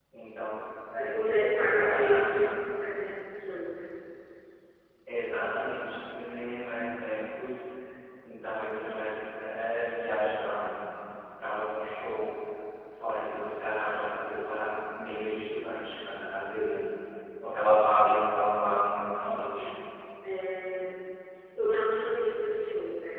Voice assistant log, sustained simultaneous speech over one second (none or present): present